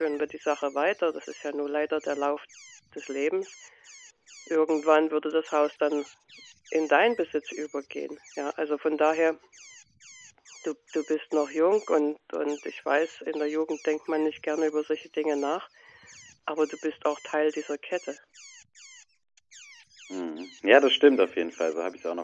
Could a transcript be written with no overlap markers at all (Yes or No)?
Yes